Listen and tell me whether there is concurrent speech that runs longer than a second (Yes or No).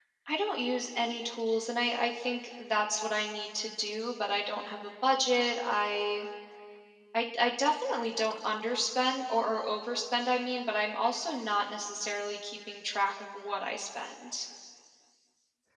No